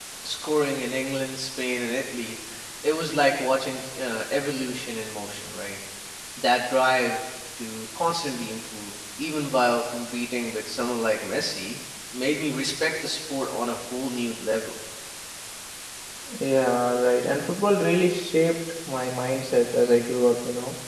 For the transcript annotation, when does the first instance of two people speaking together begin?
none

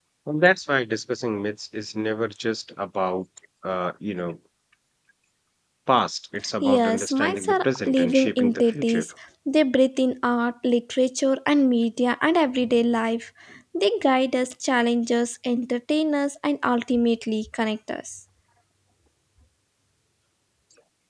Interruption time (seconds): 6.6 s

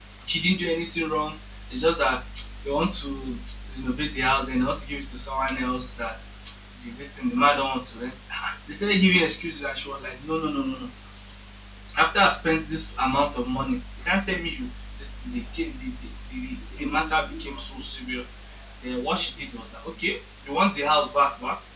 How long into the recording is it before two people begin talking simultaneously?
none

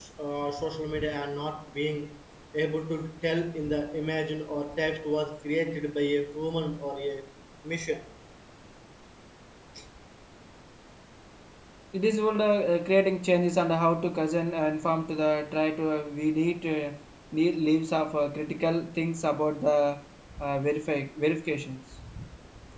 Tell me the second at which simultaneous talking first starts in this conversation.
none

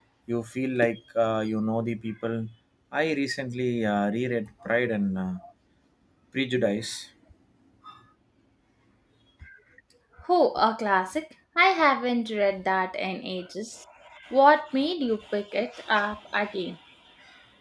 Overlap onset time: none

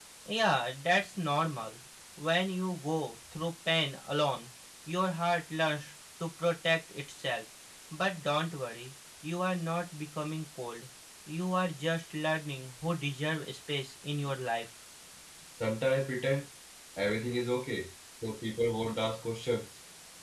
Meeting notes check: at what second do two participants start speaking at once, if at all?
none

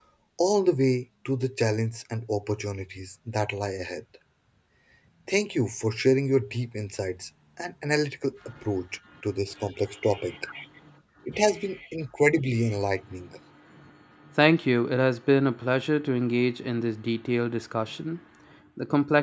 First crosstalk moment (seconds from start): none

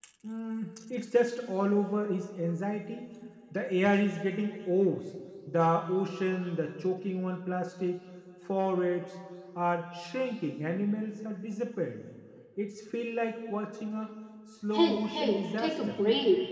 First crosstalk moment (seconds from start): 14.7 s

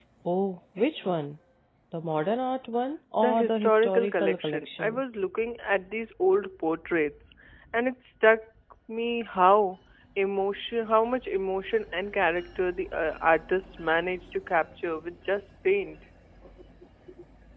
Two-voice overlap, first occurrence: 3.2 s

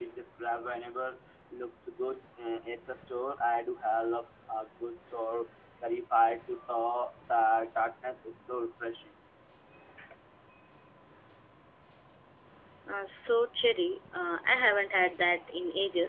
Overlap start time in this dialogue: none

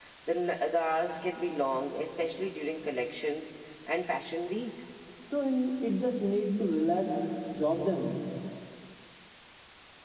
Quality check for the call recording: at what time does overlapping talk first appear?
none

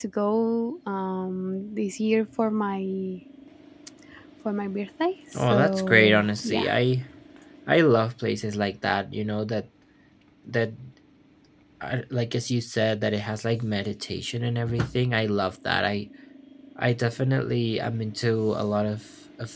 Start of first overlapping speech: 5.4 s

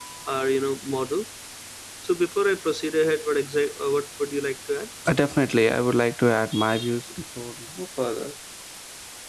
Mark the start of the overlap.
none

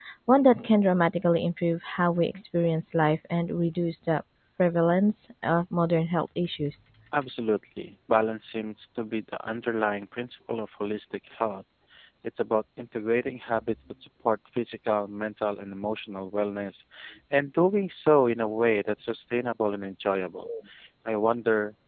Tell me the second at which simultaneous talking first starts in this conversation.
none

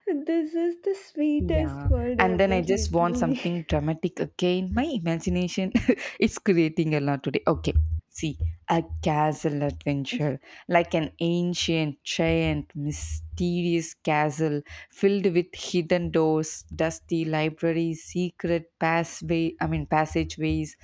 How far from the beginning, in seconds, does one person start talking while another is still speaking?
1.4 s

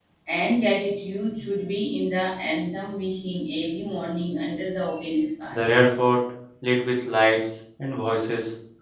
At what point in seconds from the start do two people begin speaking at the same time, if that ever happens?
none

